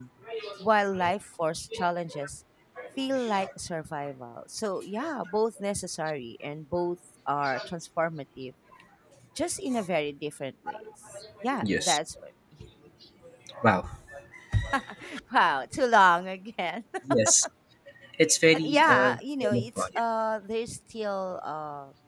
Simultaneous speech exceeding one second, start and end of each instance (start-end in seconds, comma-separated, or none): 18.5-19.9